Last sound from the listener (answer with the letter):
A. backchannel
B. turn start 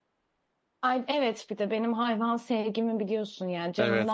B